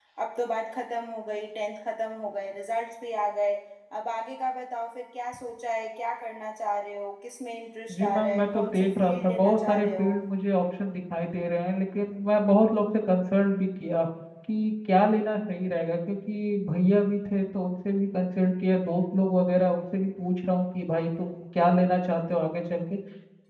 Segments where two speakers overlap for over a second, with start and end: 7.9-10.1

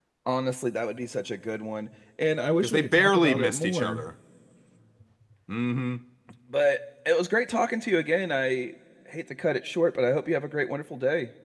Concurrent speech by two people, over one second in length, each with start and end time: 2.6-4.0

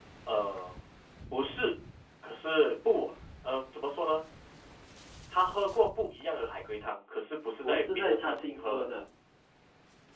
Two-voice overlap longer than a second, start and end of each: 7.6-8.9

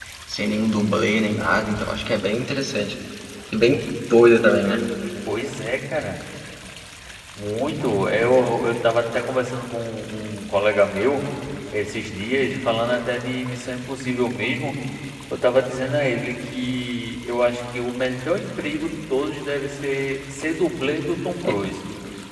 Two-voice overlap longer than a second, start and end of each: none

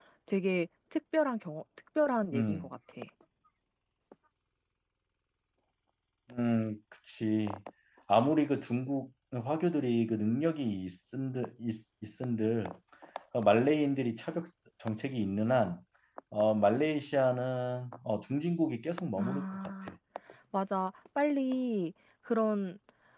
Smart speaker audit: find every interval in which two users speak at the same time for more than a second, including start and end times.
none

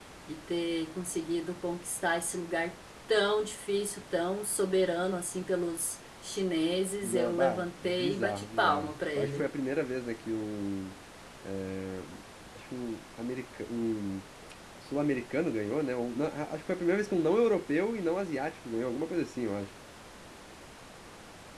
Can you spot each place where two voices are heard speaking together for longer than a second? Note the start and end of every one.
7.0-9.5

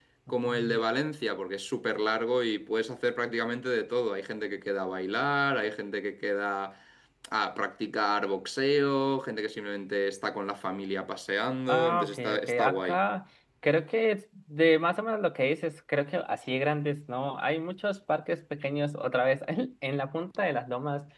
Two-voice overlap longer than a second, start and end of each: 11.7-13.0

